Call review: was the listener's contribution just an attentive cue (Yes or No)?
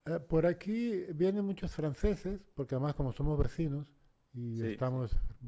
Yes